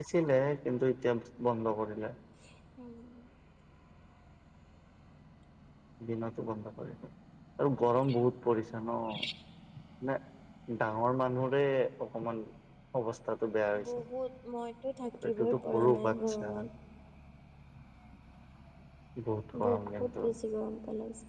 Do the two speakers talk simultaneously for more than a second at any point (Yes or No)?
Yes